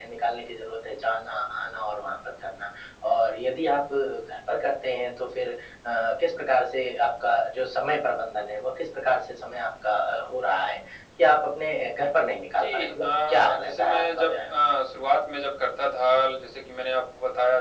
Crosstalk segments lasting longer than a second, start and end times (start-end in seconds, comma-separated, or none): 12.6-14.5